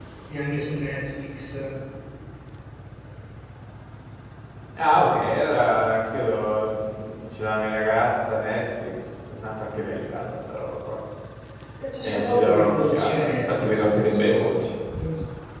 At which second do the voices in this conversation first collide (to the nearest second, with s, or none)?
12 s